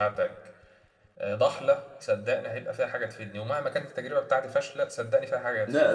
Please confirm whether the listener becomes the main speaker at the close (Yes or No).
Yes